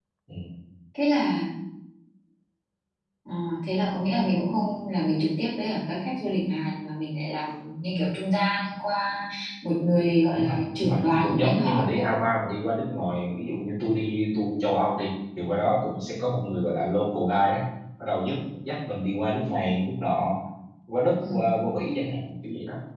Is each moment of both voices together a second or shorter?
No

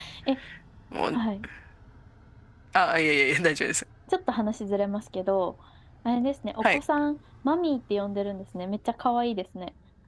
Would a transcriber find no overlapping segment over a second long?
Yes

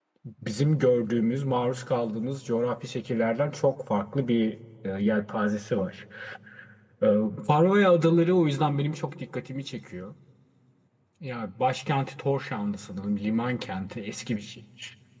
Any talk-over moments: No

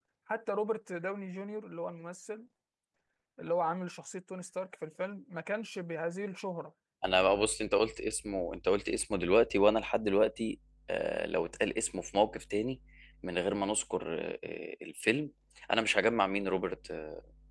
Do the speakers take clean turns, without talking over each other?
Yes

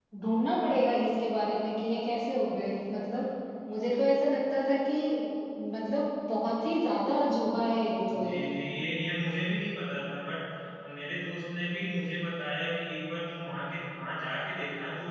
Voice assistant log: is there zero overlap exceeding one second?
Yes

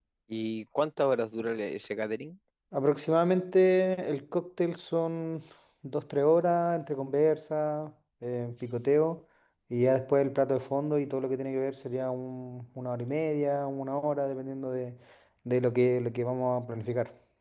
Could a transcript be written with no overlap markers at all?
Yes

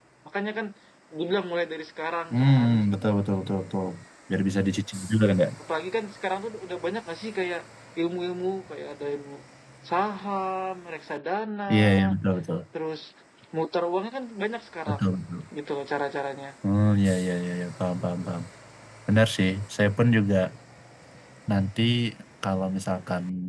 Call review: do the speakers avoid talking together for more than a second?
Yes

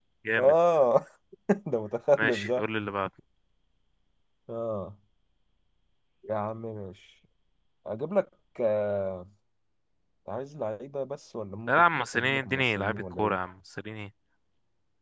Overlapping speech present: Yes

